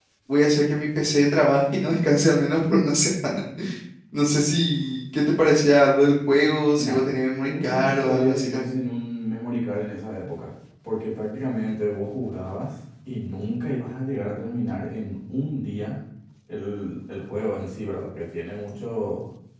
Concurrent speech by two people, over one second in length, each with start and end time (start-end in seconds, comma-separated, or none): 7.5-8.8